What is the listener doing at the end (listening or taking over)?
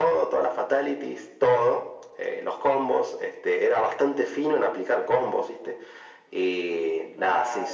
listening